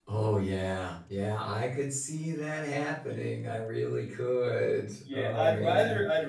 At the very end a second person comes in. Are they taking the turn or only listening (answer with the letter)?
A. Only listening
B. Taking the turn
B